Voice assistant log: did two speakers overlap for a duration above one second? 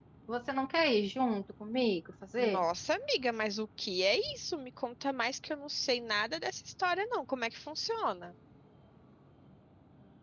No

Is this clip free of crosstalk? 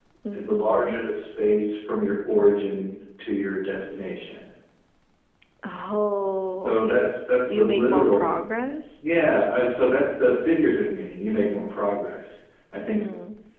No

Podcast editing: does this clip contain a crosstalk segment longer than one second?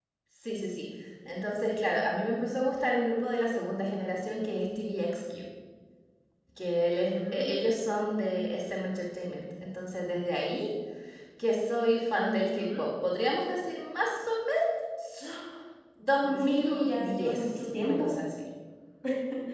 Yes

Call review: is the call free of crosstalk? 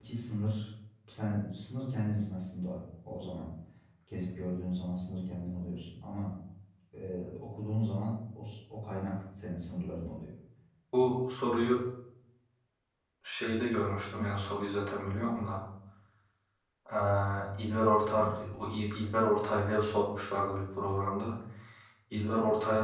Yes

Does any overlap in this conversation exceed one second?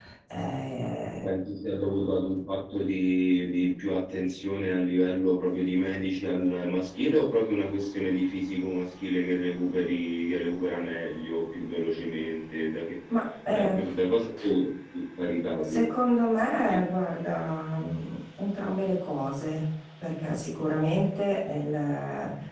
No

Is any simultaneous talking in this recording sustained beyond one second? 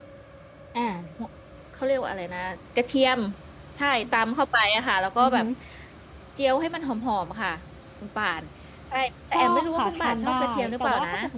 Yes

